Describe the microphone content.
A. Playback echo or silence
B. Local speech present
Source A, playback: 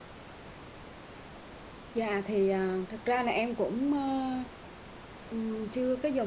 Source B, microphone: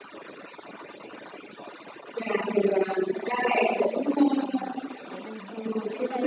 B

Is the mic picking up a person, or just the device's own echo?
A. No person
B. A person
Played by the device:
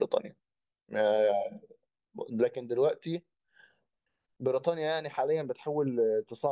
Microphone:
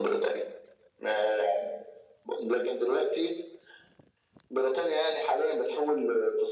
A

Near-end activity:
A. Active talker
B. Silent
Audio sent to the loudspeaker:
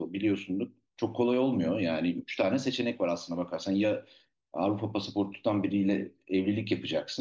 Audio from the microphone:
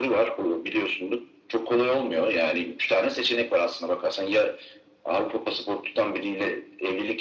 B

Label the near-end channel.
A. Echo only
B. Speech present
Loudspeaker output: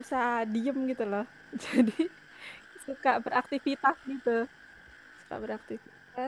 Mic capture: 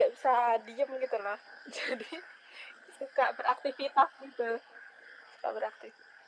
A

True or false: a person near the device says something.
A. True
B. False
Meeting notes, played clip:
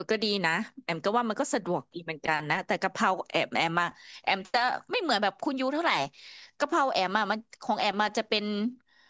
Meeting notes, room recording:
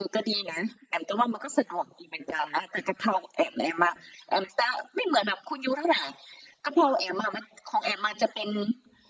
B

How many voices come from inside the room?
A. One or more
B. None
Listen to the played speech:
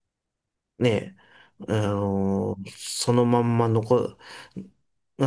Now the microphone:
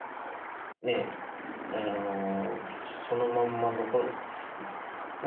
B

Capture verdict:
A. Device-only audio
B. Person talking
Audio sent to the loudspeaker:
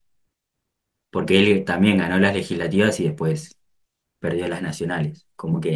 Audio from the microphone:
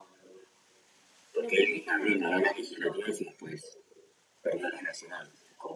B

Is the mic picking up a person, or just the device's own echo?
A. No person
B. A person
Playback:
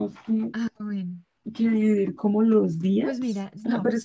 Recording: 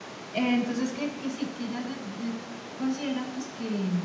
B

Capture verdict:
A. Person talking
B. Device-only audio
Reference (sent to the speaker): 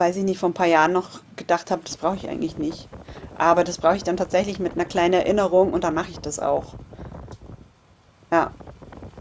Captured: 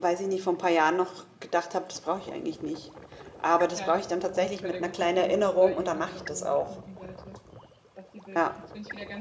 A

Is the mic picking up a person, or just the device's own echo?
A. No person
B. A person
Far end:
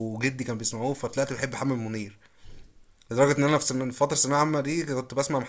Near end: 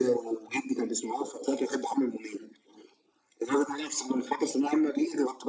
A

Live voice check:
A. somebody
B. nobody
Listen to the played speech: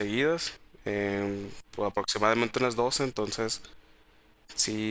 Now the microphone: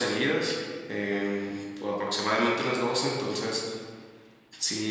B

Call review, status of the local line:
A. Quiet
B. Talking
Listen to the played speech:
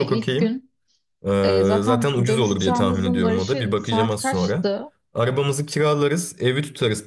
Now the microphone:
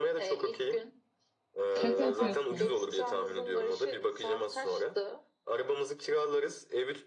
B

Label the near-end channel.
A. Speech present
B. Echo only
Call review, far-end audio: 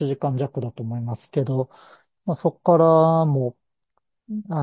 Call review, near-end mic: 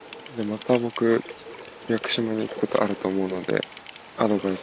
A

